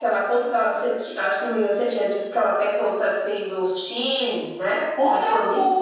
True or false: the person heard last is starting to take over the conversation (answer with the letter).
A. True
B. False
A